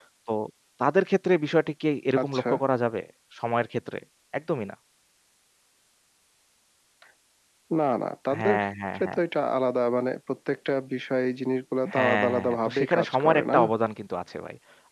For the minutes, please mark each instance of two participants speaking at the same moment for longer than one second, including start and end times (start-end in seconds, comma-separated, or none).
11.9-13.6